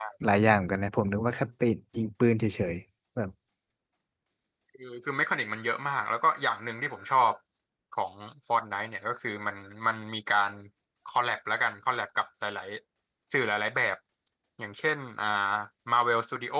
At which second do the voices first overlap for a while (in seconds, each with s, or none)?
none